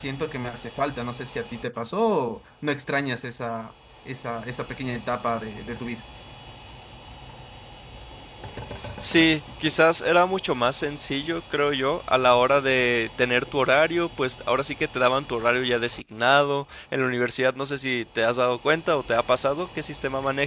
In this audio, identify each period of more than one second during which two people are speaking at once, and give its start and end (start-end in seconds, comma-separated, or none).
none